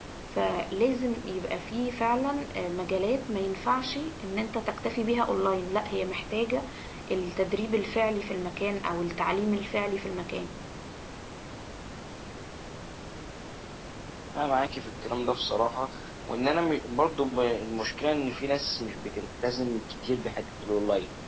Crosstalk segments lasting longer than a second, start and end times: none

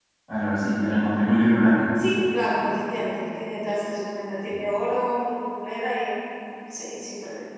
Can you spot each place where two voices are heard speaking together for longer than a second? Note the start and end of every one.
none

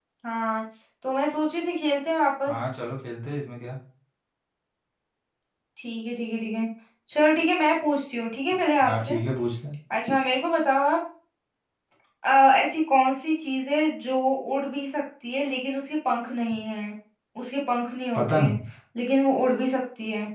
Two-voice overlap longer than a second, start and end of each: none

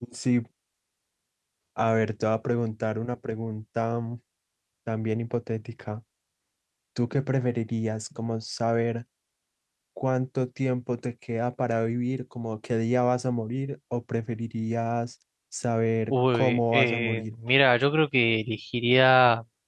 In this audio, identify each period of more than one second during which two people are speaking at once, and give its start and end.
16.1-17.4

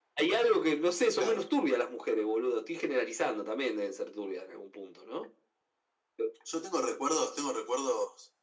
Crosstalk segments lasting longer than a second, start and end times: none

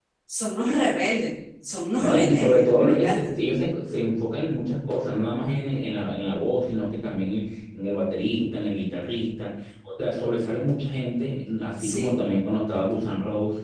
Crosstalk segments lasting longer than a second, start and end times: 1.9-3.3

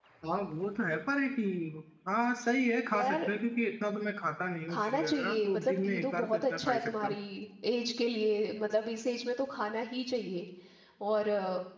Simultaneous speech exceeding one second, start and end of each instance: 4.7-7.1

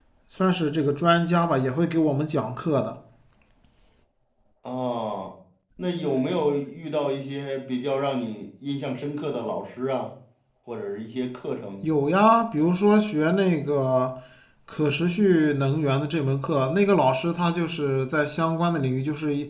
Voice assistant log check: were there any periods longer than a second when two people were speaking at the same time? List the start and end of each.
none

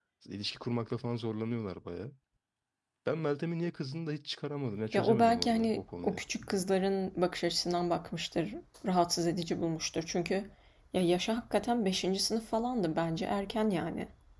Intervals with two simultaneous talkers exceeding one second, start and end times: 4.9-6.2

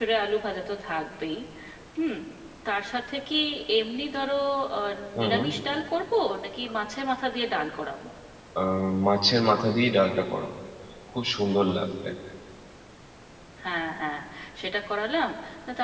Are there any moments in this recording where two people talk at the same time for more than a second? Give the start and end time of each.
none

